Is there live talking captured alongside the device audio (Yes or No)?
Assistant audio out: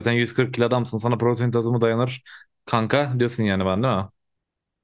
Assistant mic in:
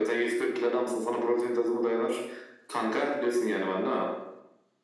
No